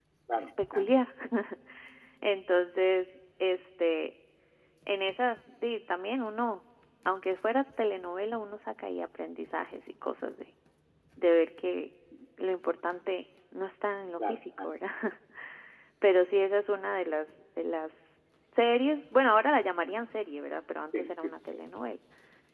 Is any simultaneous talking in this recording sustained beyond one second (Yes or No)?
No